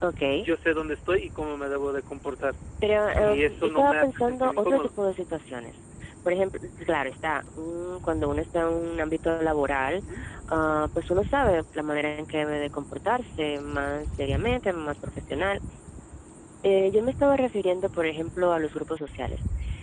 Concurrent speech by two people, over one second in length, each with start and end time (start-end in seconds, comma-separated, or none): 3.2-4.9